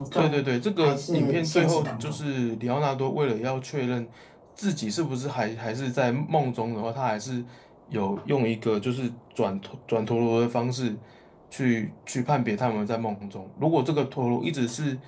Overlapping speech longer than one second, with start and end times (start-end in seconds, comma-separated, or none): 0.8-2.2